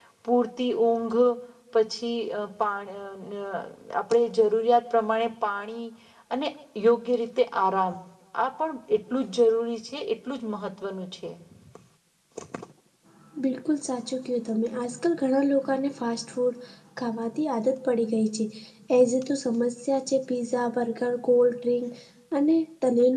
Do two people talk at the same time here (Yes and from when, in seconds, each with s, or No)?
No